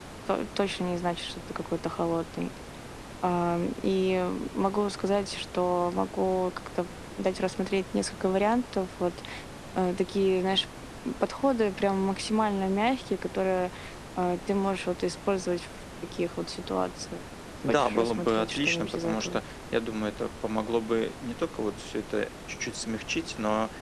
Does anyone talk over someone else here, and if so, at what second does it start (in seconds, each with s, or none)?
17.7 s